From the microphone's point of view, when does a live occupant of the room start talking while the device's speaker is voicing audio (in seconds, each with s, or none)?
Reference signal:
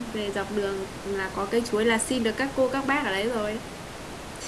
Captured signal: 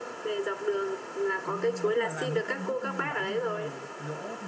1.4 s